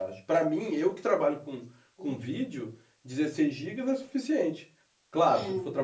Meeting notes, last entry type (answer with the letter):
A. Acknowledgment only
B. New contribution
A